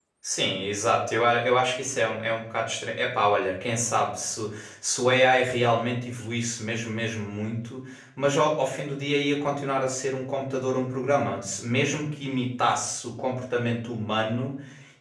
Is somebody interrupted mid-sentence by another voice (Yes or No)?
No